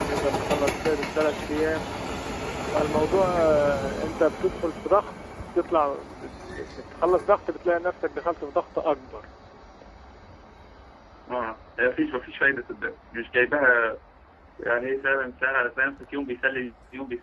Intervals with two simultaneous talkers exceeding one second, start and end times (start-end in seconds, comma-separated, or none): none